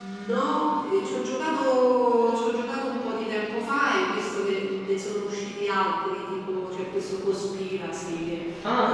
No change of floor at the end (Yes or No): Yes